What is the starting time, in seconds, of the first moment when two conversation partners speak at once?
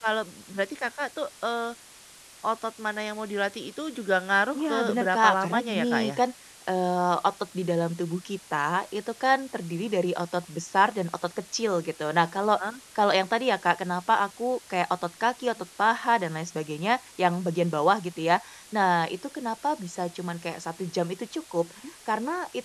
4.5 s

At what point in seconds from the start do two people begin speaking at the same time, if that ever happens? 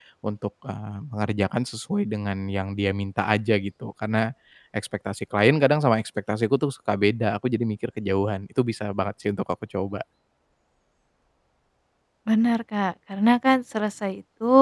none

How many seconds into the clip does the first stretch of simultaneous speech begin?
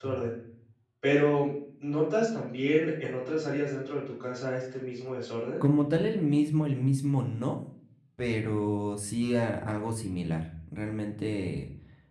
none

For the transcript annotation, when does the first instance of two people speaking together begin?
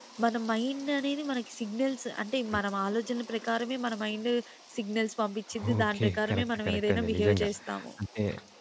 5.8 s

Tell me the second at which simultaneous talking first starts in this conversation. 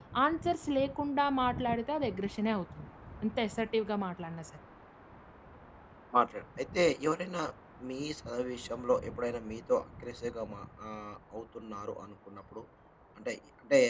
none

